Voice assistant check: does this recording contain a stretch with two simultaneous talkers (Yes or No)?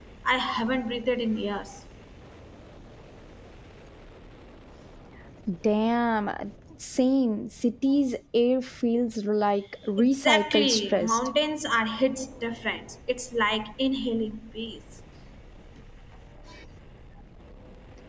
Yes